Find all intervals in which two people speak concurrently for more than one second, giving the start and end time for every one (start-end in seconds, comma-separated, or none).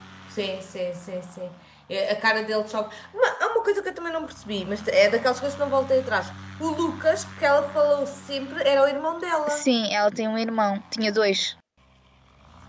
none